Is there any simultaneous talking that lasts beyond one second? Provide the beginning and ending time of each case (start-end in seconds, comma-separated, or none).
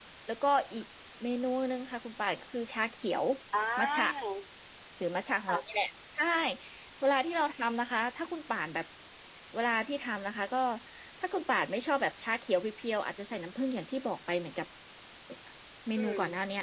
none